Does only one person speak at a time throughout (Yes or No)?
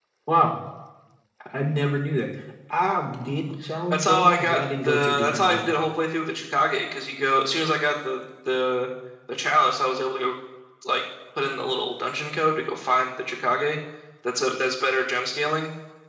No